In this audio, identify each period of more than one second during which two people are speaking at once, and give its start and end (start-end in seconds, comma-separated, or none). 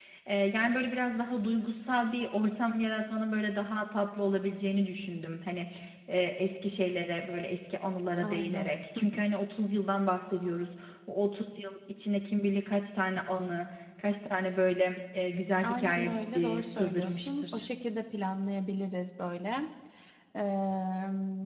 15.6-17.6